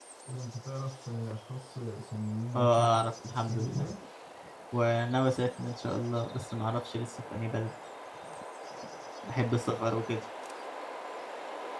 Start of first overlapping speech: 2.5 s

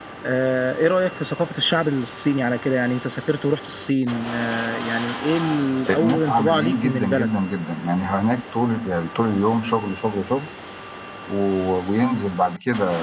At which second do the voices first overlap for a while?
5.9 s

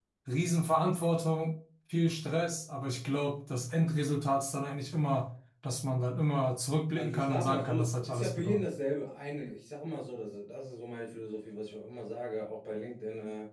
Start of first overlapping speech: 7.0 s

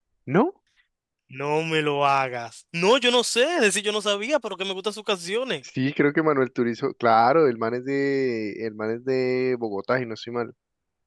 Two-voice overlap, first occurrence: none

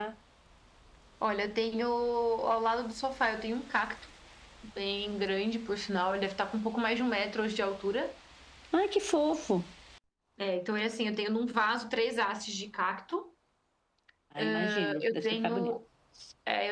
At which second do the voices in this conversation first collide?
14.4 s

